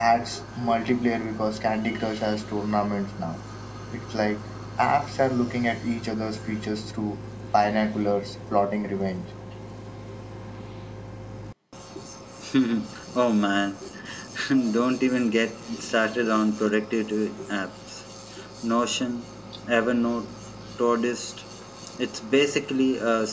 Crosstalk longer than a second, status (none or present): none